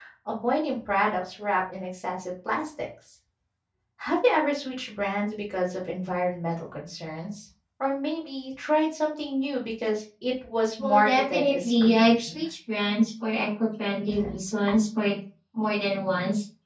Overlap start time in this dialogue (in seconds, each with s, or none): 10.8 s